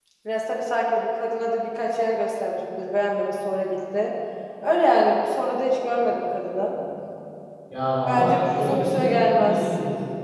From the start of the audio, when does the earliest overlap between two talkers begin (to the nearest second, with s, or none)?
8 s